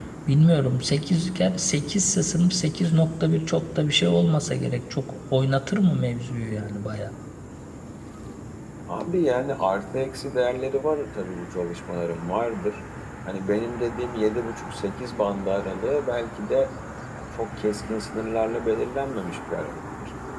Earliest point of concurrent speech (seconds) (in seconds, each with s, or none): none